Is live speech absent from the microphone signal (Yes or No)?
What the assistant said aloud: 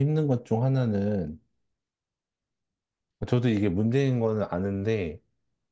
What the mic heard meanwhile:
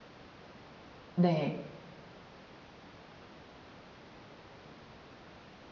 No